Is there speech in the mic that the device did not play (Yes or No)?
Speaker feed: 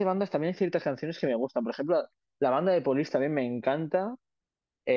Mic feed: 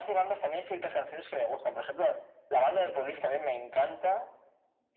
No